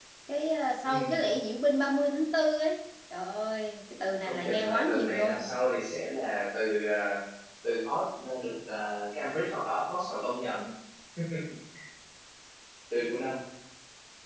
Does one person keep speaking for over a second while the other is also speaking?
Yes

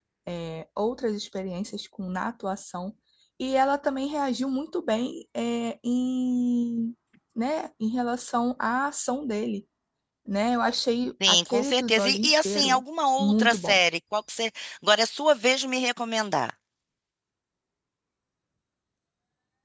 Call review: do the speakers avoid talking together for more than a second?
No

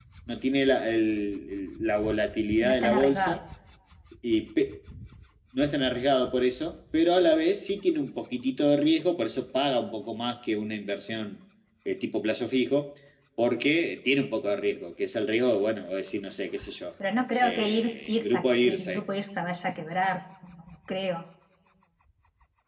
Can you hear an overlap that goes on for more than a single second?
Yes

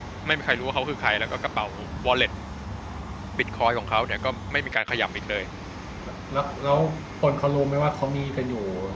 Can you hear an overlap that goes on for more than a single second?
No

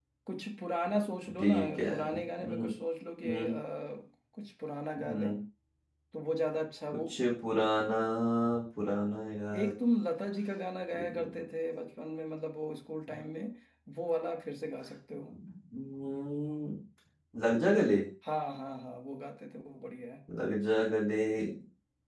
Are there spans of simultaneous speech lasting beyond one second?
Yes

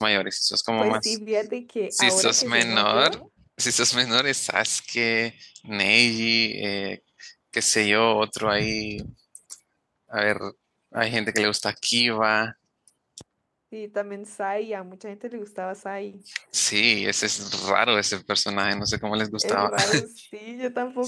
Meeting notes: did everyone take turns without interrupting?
No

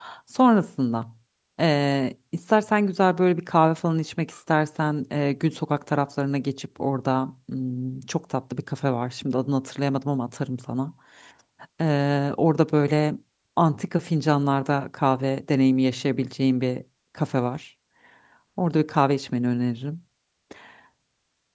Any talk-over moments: No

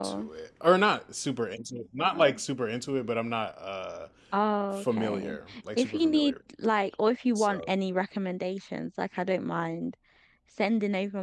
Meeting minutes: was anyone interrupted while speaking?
Yes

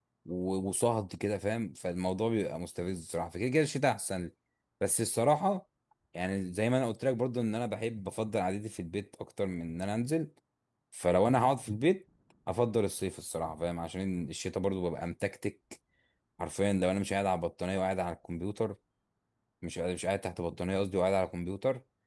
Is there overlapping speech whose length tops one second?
No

